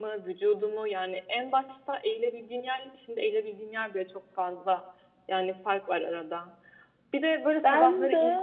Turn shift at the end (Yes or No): No